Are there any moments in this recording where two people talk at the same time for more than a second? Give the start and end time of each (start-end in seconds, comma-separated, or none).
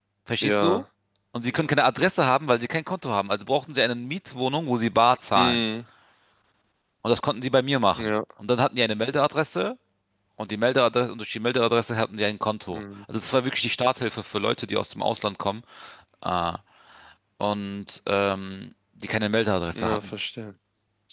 none